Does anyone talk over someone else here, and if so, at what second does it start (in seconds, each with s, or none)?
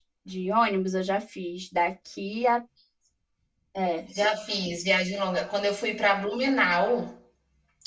none